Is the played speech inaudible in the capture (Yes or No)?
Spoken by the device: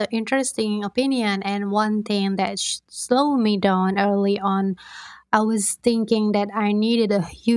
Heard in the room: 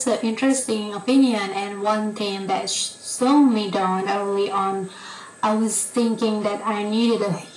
No